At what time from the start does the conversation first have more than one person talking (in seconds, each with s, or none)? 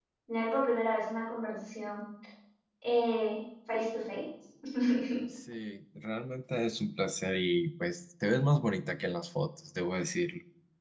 none